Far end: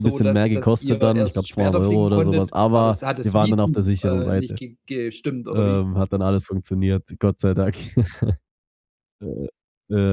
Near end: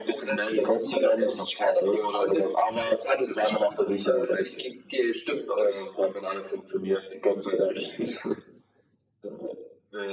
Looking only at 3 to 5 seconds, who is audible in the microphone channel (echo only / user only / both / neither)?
echo only